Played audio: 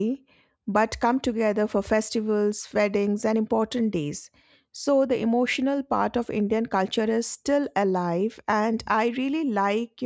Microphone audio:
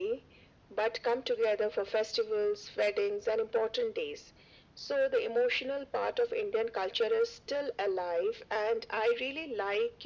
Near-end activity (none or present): none